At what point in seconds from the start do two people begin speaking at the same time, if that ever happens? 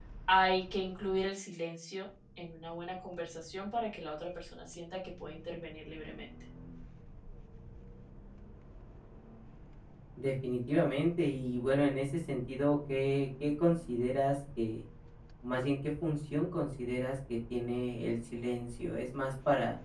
none

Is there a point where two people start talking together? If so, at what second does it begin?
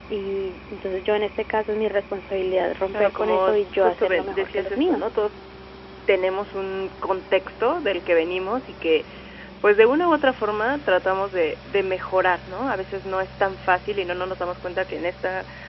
3 s

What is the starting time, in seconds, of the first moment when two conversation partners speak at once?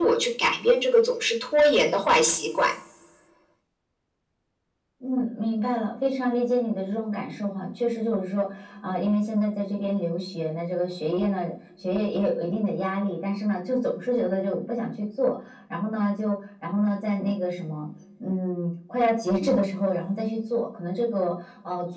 none

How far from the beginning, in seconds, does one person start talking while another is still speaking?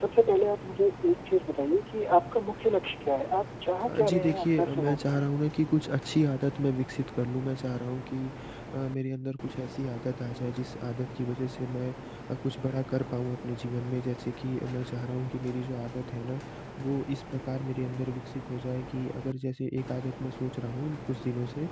4 s

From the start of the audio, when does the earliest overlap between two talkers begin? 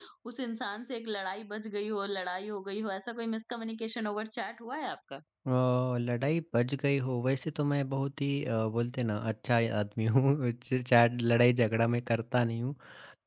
none

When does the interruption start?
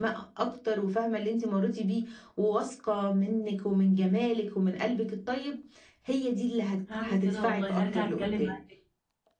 7 s

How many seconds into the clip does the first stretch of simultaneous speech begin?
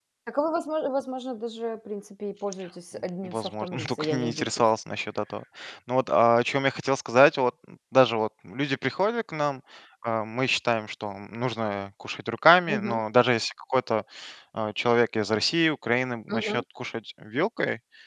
3 s

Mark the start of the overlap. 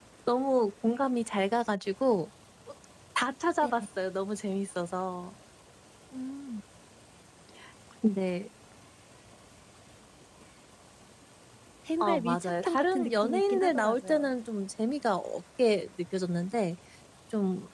12 s

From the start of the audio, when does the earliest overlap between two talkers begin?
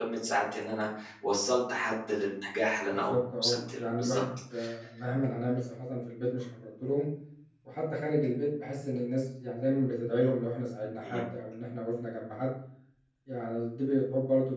3 s

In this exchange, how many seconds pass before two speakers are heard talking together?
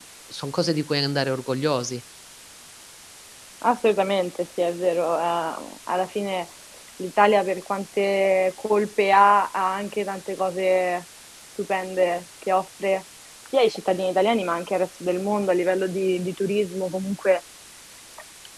none

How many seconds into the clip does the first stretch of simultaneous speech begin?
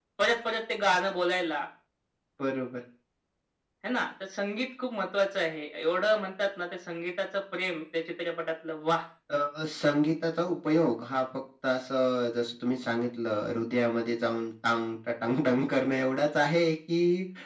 none

